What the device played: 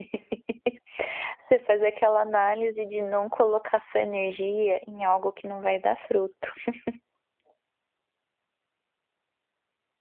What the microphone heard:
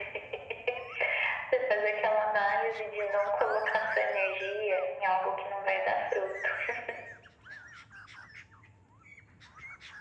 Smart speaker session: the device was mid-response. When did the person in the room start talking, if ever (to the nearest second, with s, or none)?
none